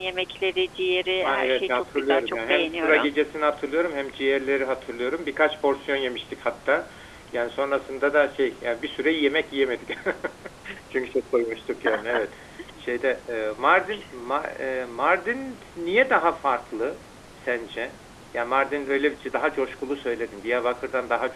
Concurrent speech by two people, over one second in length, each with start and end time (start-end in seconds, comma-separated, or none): 1.2-3.1